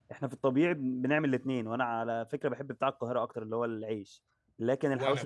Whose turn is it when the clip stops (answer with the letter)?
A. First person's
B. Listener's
A